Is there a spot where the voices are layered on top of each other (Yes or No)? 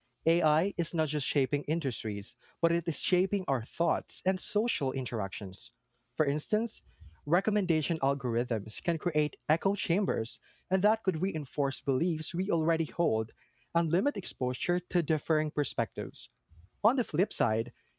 No